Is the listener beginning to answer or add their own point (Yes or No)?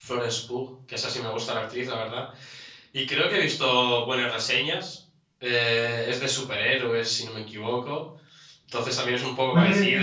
No